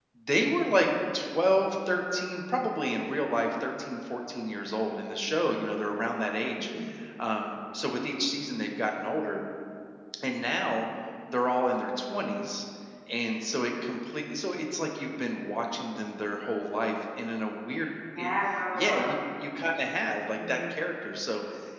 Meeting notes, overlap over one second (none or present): none